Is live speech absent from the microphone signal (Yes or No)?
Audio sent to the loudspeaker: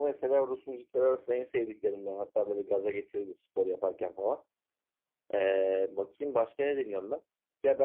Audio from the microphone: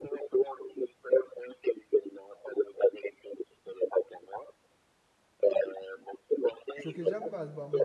No